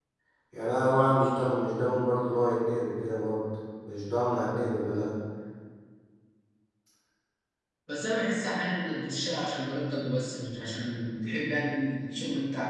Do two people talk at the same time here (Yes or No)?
No